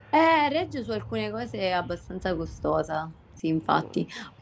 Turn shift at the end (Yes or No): No